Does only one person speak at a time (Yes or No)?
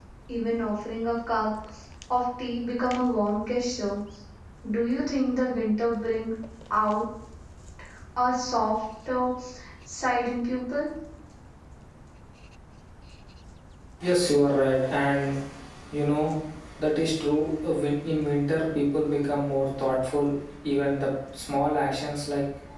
Yes